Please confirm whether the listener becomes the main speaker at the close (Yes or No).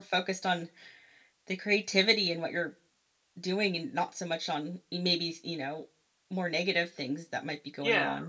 Yes